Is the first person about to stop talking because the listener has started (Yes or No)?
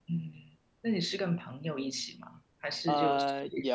Yes